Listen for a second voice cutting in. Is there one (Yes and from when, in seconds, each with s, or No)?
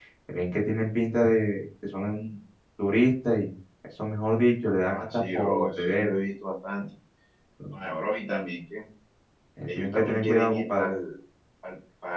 Yes, from 4.8 s